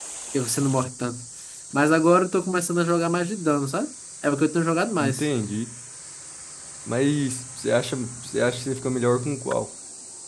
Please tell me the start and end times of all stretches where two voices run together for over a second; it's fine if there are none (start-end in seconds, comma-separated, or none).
none